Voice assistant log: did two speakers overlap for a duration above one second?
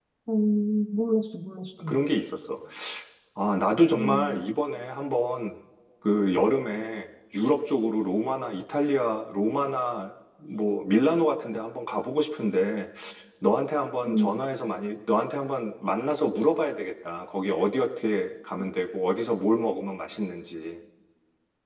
No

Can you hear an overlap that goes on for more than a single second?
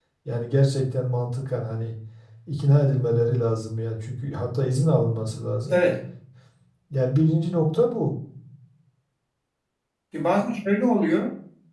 No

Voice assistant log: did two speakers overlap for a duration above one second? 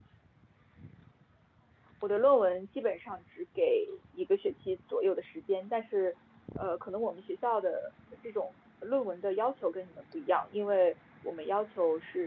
No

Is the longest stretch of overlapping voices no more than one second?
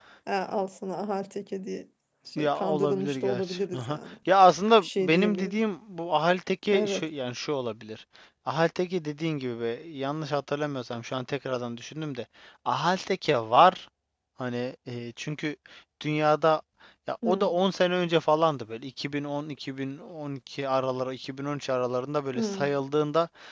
No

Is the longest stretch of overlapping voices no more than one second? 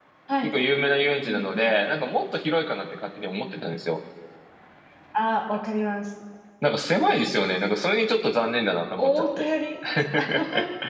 Yes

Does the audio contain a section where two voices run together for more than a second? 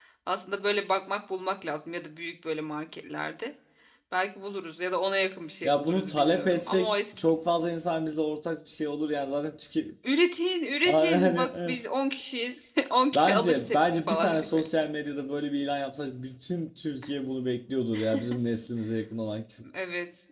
Yes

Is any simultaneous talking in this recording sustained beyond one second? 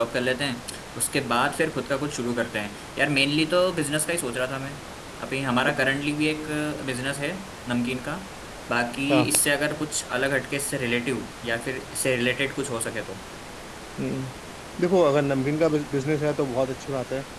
No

